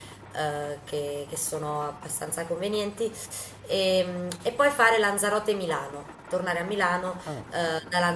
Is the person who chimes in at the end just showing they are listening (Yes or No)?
Yes